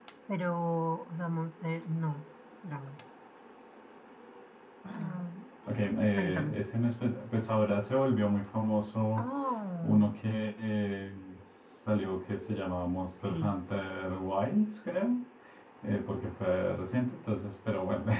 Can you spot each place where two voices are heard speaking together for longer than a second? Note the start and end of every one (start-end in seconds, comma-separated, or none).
none